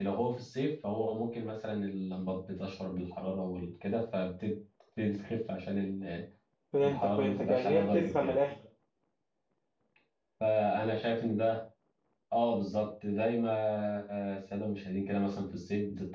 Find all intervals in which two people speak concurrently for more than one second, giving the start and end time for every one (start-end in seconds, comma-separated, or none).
6.8-8.4